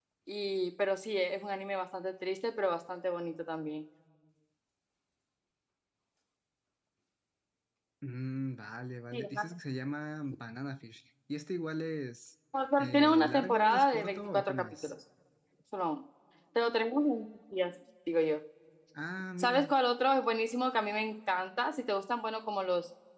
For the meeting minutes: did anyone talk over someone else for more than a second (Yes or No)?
Yes